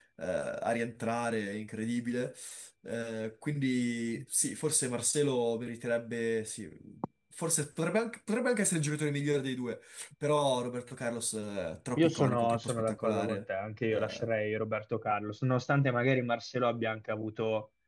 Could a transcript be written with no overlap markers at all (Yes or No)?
No